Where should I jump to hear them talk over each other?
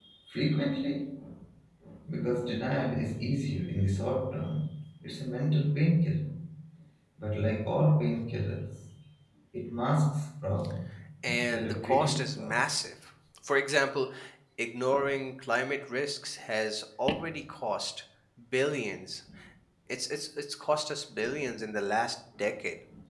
11.2 s

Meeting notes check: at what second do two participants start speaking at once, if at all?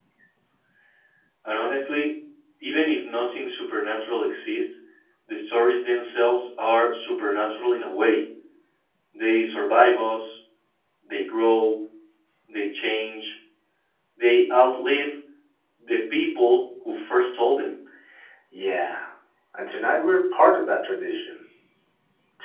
none

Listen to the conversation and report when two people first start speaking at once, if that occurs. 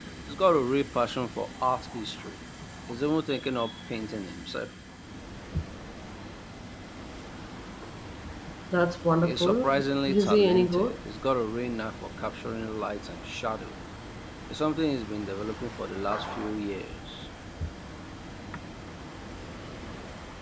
9.2 s

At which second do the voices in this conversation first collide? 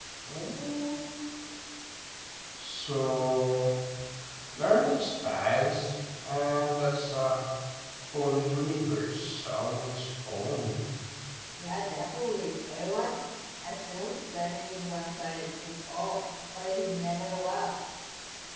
none

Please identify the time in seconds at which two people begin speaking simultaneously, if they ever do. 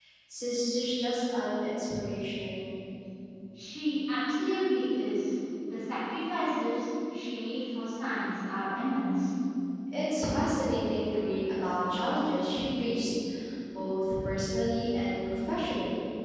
none

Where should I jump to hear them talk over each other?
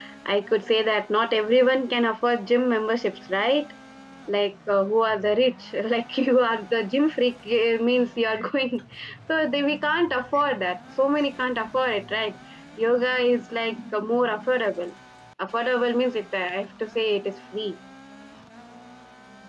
none

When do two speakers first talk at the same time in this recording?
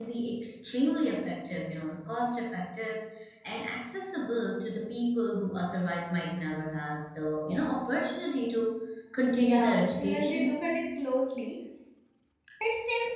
9.4 s

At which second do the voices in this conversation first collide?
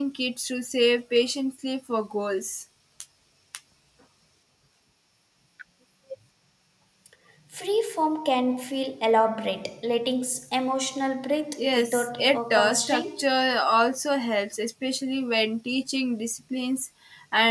11.6 s

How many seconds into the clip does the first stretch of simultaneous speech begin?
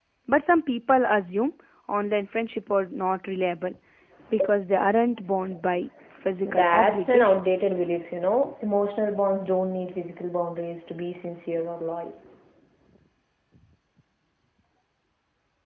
6.4 s

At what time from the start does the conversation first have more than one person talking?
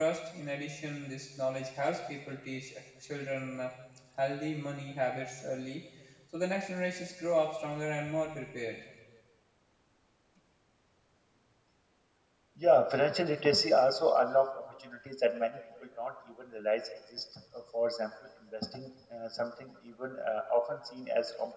none

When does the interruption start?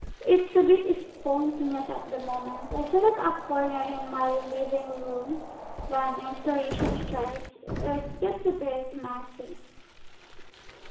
none

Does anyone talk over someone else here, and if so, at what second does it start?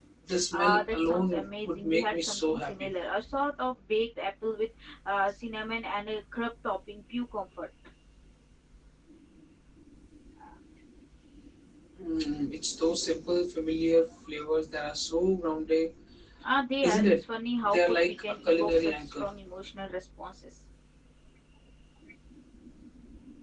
0.5 s

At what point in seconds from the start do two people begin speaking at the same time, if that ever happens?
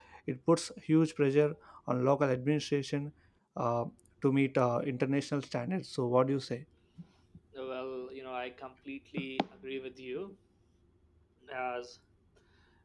none

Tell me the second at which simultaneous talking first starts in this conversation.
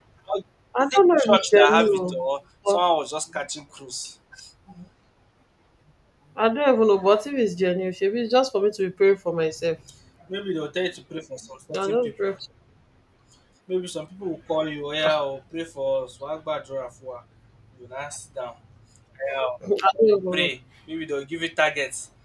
0.8 s

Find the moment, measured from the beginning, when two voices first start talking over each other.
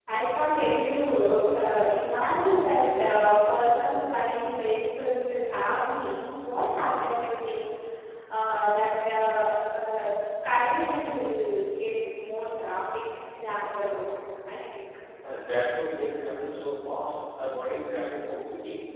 none

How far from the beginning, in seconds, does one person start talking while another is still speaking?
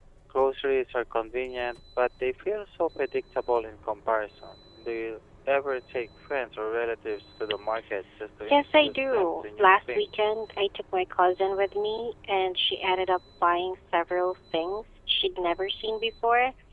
8.4 s

